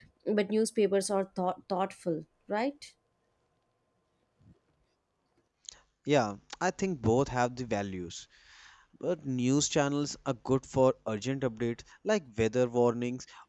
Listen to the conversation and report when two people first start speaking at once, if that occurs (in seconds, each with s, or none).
none